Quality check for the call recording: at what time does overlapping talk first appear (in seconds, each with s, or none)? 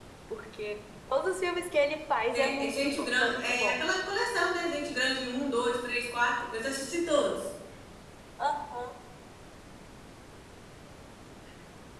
2.3 s